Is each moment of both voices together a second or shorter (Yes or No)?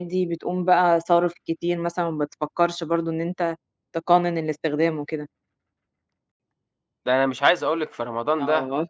Yes